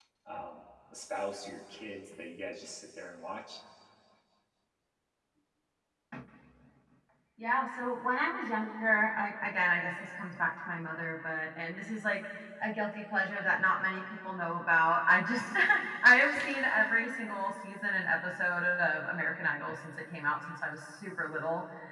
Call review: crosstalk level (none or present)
none